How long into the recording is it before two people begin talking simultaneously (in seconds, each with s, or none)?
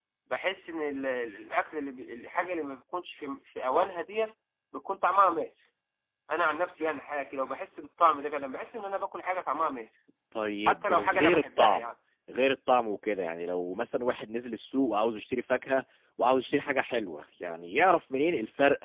10.7 s